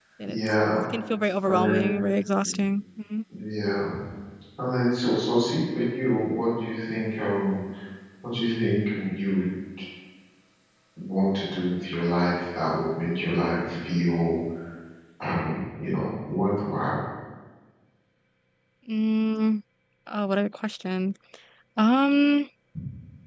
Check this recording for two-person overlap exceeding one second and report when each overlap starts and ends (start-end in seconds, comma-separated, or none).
none